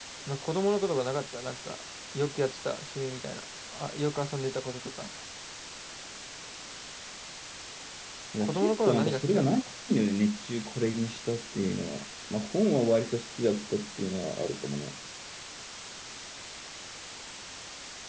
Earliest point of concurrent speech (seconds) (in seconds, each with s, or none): 8.4 s